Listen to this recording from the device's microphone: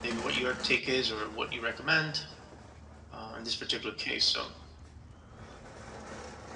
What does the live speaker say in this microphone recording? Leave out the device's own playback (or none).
none